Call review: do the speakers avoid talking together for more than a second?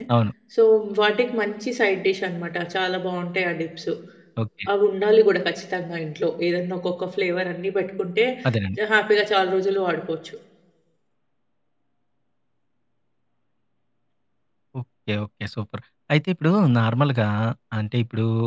Yes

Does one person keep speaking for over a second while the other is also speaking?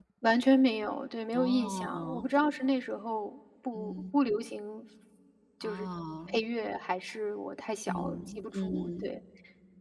Yes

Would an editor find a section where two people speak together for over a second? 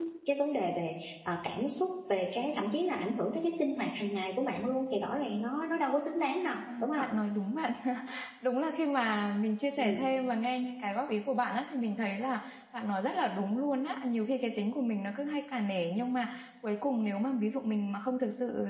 No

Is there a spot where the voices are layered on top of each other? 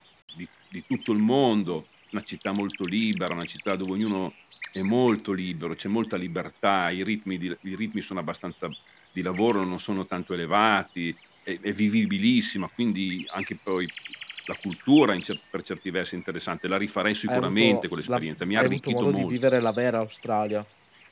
Yes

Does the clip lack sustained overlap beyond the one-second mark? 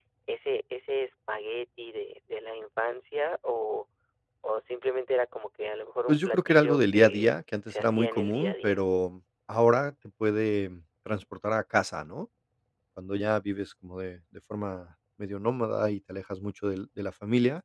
No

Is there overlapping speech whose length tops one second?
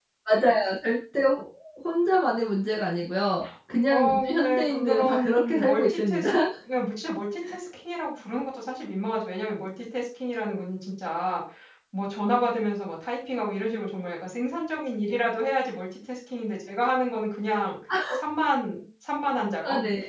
Yes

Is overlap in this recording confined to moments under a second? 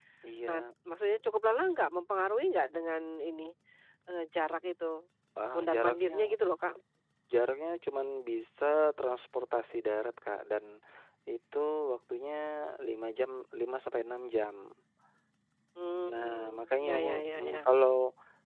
No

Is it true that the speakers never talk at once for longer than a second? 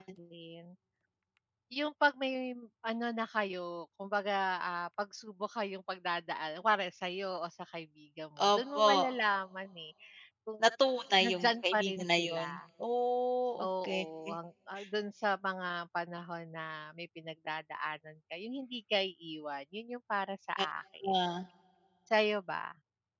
No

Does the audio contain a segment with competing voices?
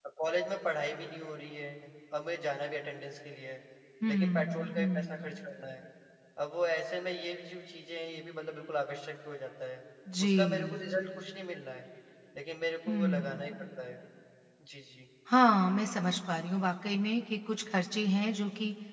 Yes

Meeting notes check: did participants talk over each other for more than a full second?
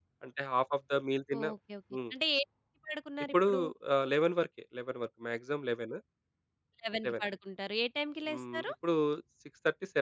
No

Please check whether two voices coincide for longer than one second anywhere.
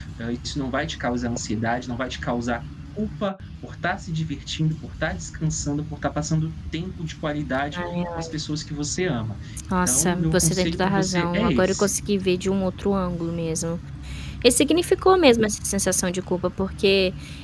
Yes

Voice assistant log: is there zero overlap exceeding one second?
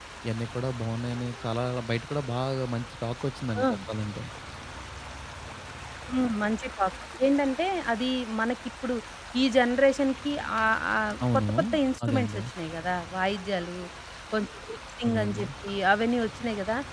Yes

